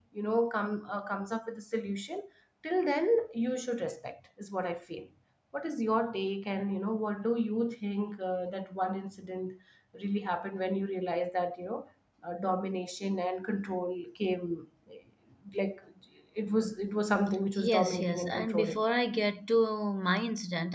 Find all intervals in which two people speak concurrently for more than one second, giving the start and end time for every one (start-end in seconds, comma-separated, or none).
17.6-18.8